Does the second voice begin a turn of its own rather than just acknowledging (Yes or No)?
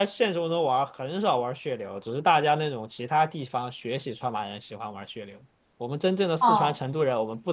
No